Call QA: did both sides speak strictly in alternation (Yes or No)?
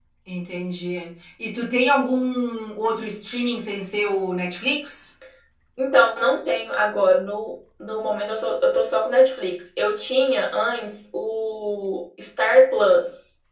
Yes